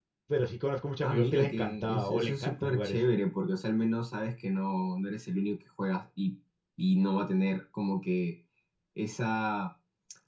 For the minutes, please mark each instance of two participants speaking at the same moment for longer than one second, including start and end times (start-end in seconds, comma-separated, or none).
1.0-3.0